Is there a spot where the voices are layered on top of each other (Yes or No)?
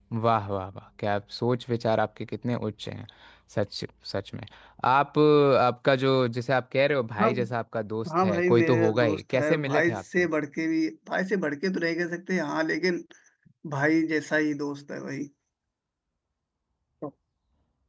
Yes